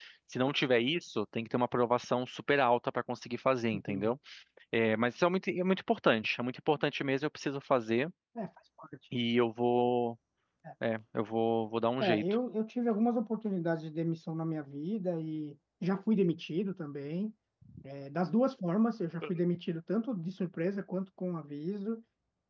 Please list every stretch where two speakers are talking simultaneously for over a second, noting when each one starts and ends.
none

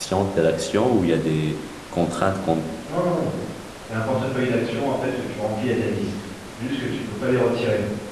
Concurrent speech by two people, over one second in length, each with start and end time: none

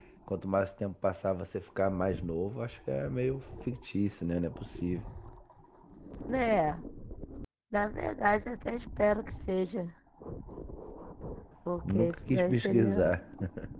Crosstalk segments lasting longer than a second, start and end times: 11.9-13.1

